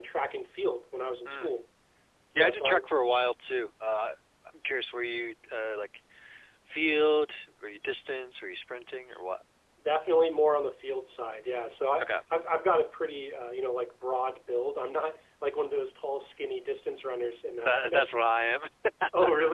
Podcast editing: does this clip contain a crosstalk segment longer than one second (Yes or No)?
No